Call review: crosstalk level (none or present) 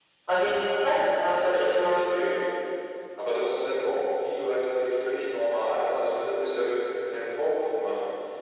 present